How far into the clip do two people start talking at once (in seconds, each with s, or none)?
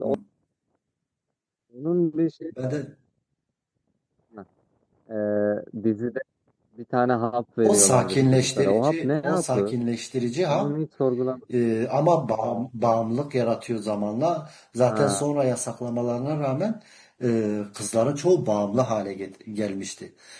7.6 s